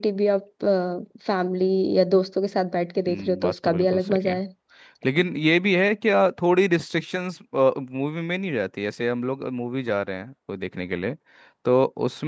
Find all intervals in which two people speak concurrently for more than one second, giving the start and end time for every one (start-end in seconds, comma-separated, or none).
3.1-4.4